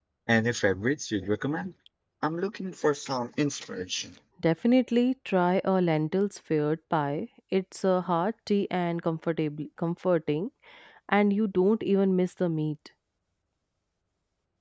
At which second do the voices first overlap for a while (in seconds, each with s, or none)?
none